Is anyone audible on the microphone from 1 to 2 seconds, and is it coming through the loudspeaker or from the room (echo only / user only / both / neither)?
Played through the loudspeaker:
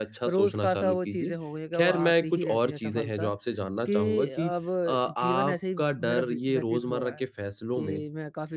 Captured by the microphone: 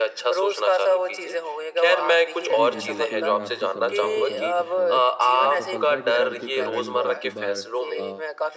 echo only